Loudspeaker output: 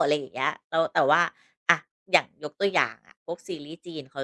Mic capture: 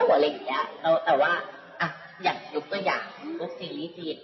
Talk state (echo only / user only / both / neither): both